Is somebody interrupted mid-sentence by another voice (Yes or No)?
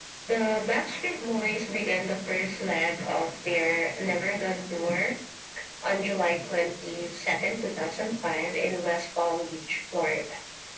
No